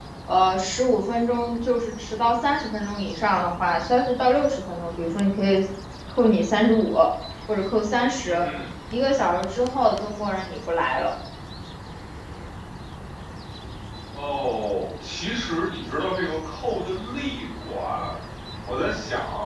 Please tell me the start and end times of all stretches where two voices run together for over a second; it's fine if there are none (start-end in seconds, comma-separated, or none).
none